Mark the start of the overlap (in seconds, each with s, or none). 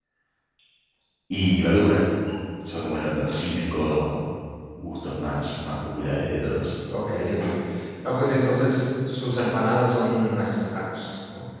none